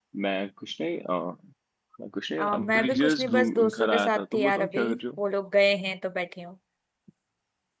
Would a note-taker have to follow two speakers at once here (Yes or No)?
Yes